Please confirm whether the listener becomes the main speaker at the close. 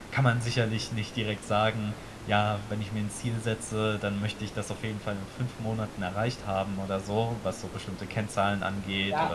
Yes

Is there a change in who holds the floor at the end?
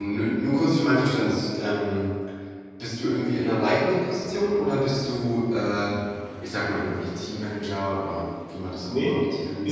Yes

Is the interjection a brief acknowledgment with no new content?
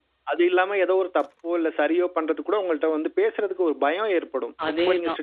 Yes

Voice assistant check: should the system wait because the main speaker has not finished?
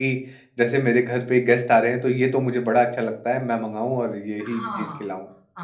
No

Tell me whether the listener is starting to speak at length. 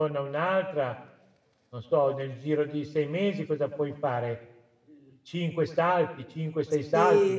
Yes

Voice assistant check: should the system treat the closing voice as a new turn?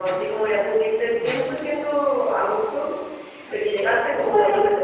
Yes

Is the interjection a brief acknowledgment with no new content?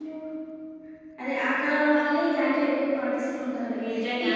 Yes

